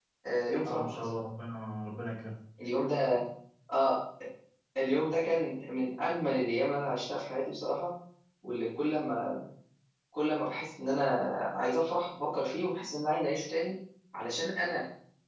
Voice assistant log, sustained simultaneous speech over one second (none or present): none